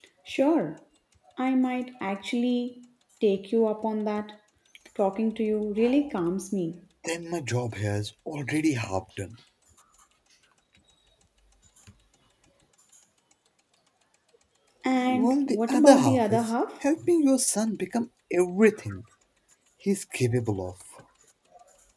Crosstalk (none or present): present